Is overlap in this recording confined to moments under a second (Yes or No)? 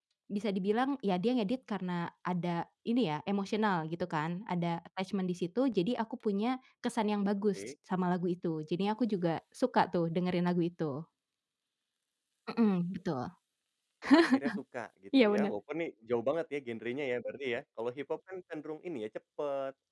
Yes